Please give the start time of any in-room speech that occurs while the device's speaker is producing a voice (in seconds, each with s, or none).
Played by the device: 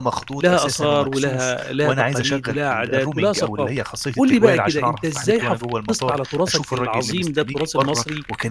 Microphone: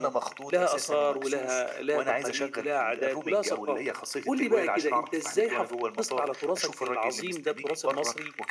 none